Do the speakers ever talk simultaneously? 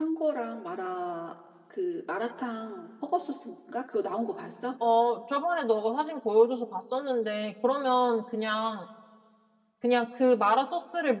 No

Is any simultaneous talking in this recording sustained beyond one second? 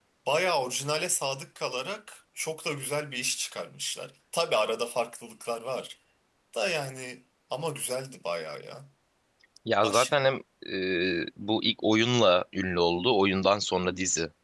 No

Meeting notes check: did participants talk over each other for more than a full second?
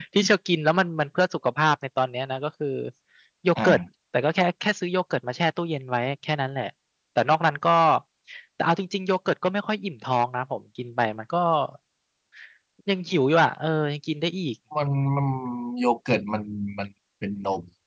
No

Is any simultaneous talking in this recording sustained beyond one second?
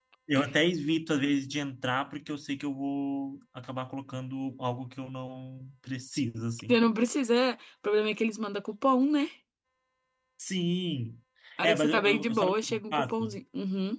Yes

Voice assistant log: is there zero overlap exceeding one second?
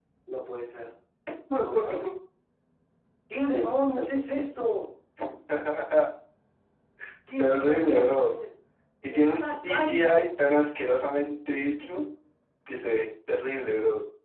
No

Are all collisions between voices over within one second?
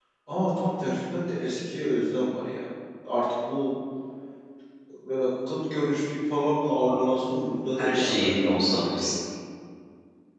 No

